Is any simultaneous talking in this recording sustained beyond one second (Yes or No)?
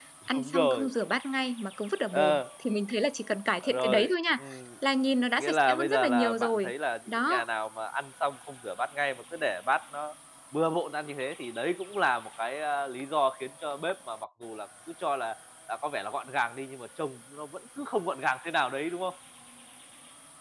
Yes